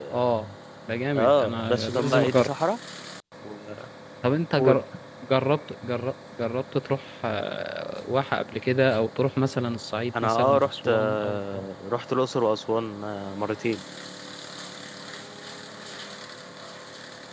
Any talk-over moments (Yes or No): Yes